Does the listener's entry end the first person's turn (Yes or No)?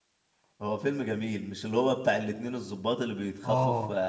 No